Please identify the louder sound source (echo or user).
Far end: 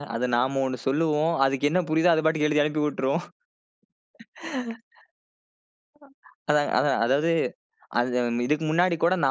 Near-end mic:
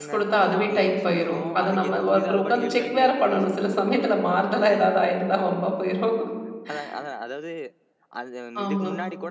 user